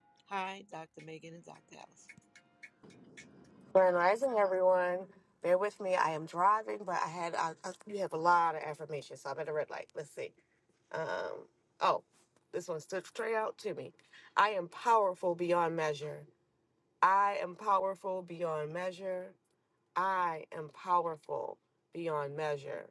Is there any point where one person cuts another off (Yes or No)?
No